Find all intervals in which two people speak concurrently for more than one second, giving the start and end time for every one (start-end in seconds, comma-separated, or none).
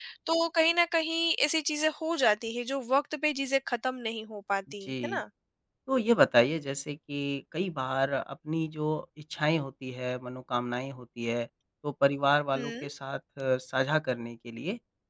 none